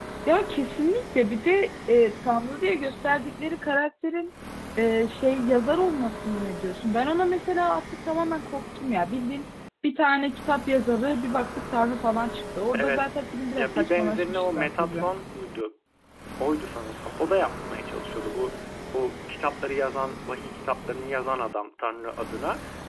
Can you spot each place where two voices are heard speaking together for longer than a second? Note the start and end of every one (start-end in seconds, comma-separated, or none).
13.6-15.0